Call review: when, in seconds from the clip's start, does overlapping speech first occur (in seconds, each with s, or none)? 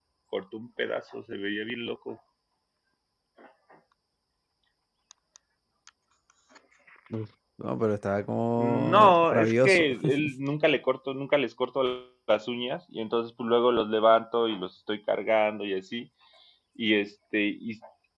8.6 s